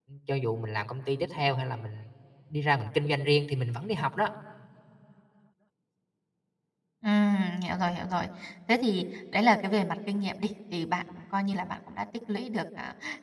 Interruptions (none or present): none